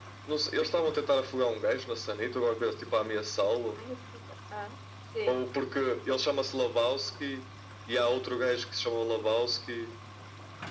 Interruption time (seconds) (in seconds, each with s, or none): none